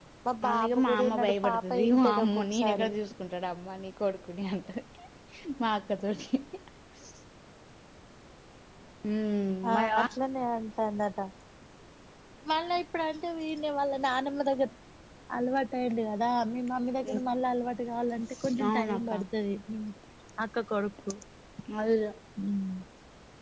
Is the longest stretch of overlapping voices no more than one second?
No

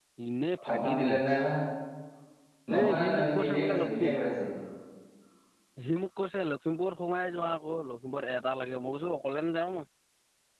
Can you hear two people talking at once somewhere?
Yes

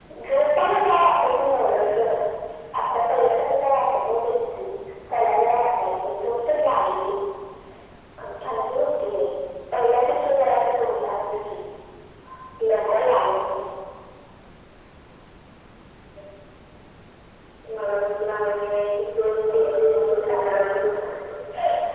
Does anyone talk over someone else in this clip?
Yes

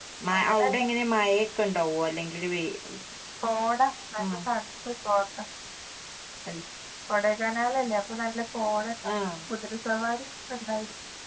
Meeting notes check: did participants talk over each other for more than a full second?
No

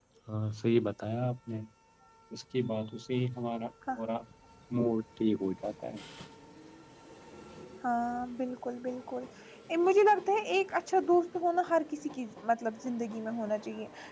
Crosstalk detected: No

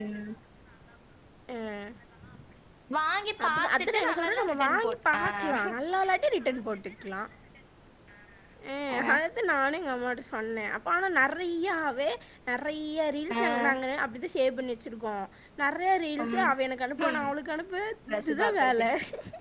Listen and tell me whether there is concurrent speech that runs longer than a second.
Yes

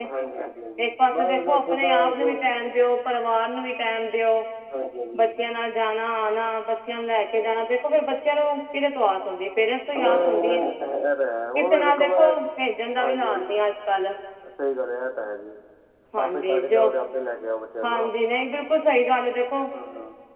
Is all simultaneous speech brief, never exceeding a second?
No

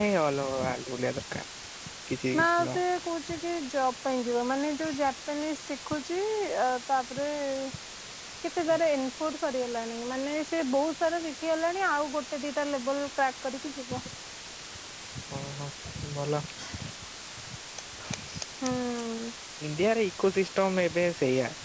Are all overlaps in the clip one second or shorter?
Yes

